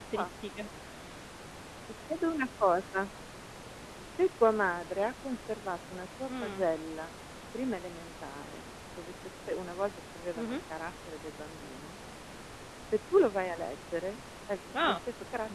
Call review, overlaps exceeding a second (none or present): none